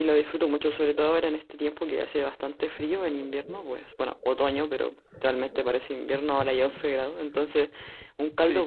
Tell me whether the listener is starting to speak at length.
Yes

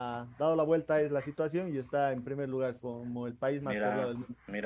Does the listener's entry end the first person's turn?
Yes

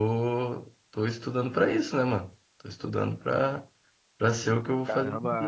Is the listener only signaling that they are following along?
No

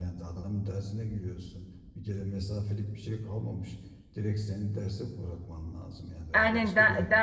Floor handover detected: Yes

